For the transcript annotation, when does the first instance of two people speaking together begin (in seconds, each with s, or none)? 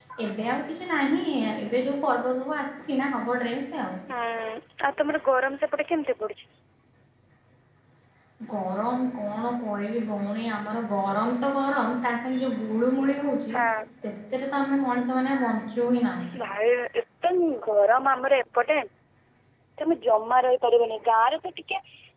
none